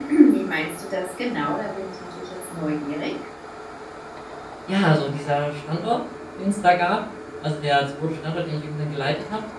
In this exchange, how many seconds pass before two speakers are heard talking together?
none

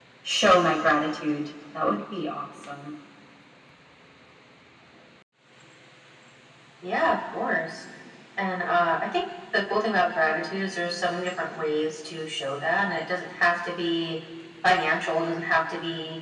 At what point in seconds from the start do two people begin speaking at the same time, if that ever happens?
none

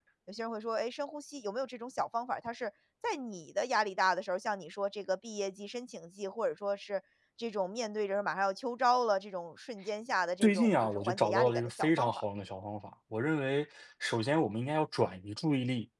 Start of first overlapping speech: 10.4 s

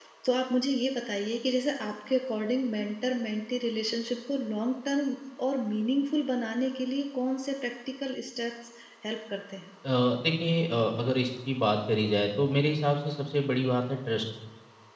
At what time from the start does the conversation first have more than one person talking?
none

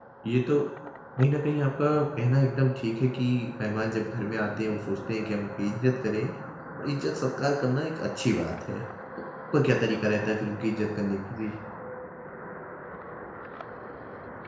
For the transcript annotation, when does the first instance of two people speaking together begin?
none

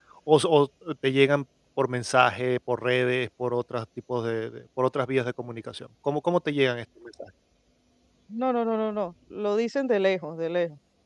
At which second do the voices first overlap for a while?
none

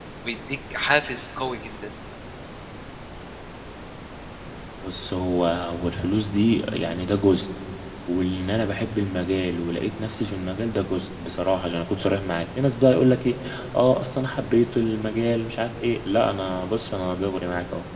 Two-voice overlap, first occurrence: none

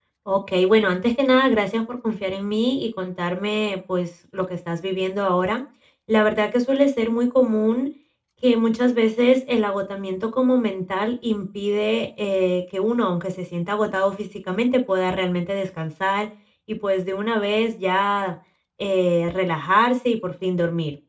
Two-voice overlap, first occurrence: none

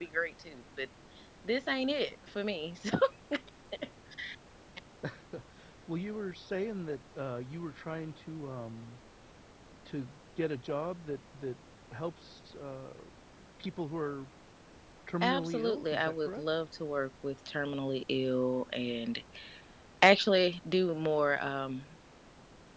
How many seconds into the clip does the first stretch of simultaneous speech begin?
15.2 s

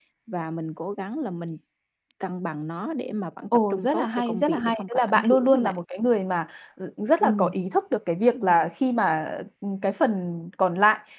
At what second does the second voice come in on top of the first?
3.5 s

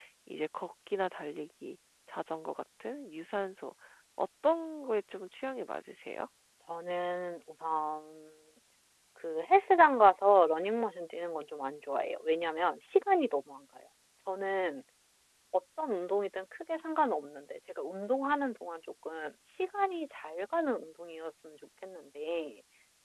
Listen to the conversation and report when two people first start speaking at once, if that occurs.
none

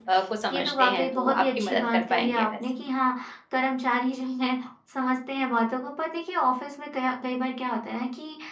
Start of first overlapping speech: 0.5 s

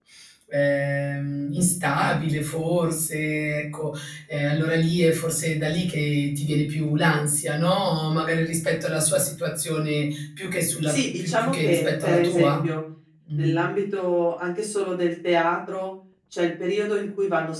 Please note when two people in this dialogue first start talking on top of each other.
10.9 s

